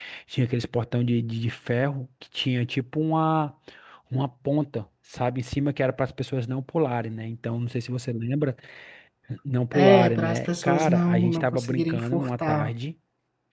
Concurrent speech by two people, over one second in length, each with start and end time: 9.7-12.7

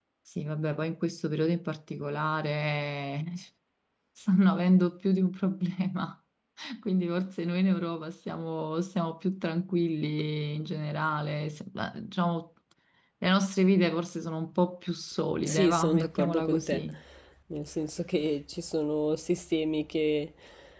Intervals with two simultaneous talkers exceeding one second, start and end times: 15.4-16.8

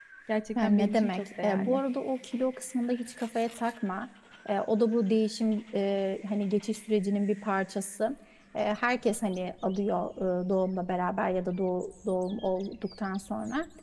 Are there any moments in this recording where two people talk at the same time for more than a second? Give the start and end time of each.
0.6-1.8

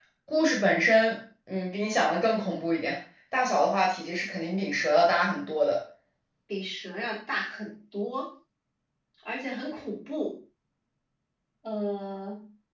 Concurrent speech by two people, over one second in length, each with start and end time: none

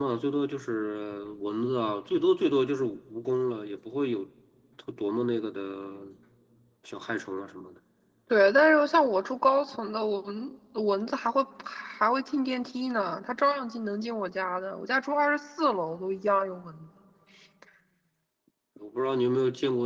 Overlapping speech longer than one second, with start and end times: none

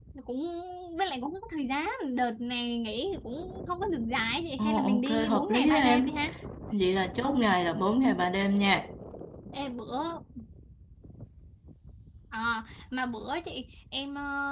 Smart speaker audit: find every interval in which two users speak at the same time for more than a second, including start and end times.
4.6-6.2

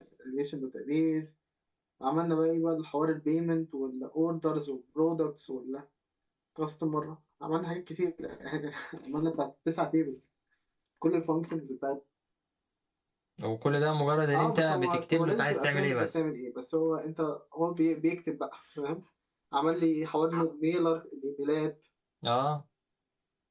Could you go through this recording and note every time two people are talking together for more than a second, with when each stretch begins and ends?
14.3-16.2

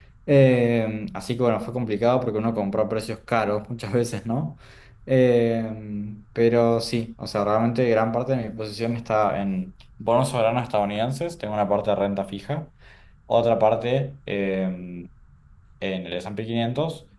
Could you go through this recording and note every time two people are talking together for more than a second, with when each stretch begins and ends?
none

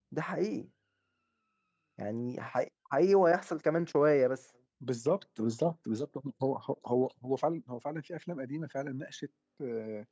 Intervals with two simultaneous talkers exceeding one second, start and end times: none

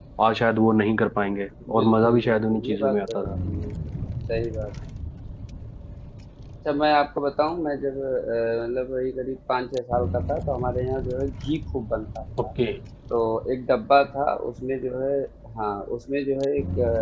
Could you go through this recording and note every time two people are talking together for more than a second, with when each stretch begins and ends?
1.7-3.3

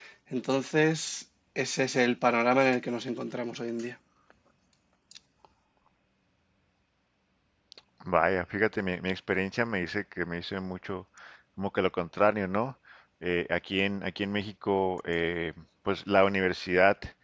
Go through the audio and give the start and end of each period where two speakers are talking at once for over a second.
none

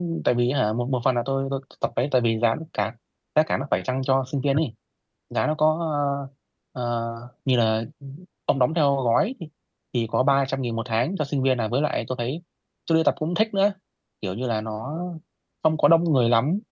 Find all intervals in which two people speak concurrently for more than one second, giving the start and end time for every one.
none

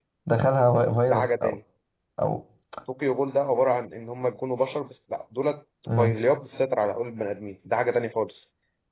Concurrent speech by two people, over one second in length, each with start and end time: none

